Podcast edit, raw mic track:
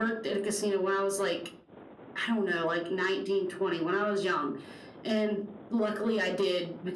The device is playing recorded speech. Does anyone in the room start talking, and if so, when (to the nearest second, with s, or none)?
none